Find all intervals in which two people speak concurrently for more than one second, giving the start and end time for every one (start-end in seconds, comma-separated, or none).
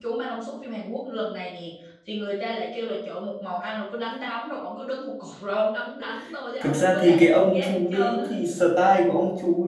6.6-8.3